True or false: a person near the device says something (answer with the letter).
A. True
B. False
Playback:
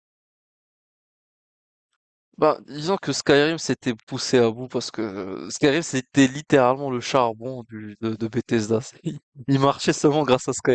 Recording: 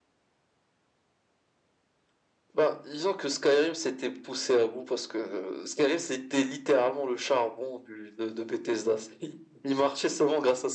B